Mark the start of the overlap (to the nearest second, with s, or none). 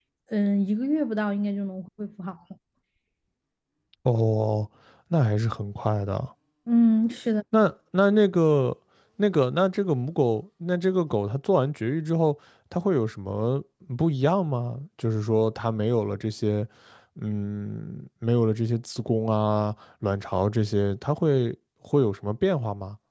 none